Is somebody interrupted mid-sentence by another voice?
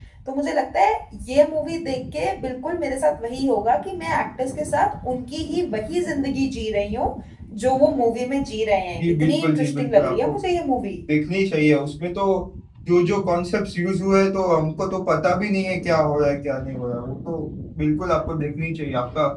Yes, from 9.0 s

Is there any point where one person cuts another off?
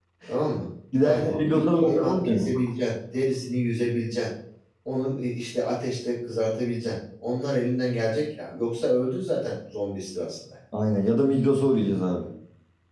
Yes, from 1.0 s

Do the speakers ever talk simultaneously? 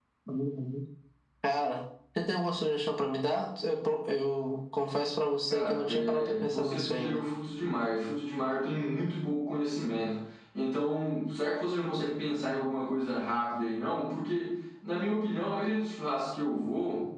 Yes, from 5.5 s

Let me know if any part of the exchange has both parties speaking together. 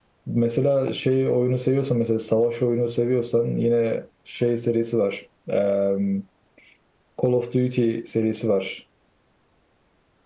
No

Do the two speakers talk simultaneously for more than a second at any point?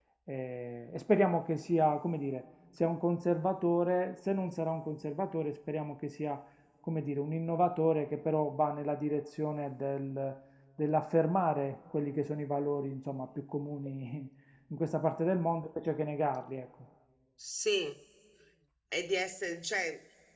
No

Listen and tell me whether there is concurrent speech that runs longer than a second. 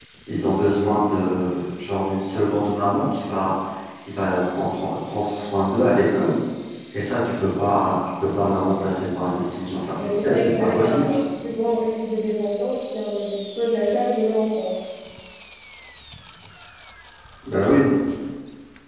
Yes, from 9.9 s

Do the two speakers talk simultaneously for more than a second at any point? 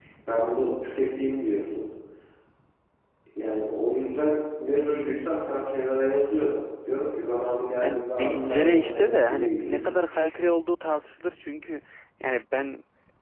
Yes, from 7.8 s

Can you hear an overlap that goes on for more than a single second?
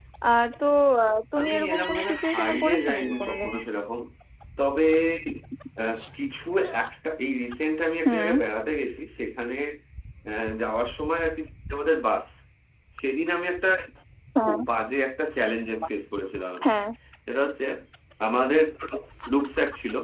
Yes, from 1.4 s

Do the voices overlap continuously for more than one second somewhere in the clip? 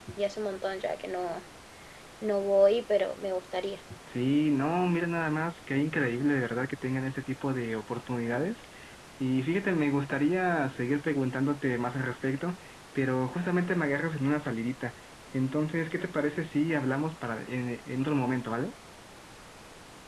No

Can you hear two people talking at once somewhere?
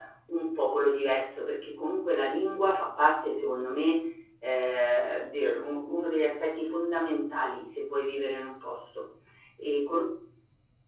No

